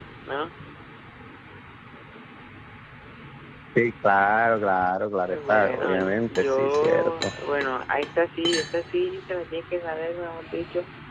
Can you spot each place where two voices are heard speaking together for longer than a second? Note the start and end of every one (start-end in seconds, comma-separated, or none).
5.3-7.3